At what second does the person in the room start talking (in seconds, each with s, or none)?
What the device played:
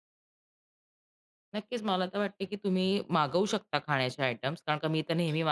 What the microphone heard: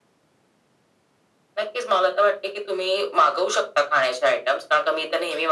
none